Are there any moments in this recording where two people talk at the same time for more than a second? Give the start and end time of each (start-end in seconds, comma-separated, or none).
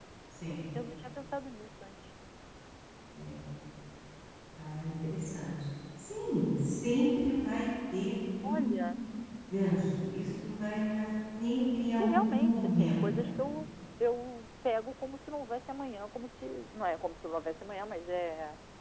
12.0-13.5